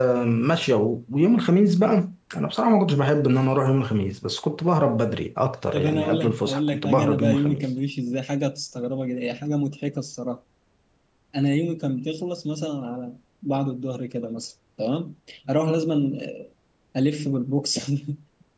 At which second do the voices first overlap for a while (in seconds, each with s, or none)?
5.7 s